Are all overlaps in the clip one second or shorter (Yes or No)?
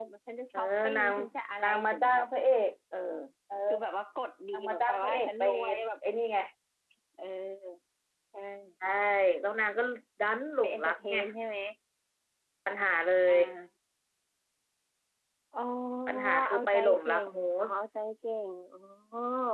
No